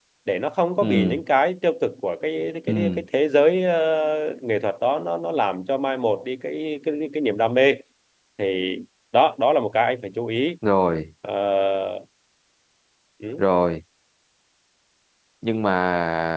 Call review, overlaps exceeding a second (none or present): none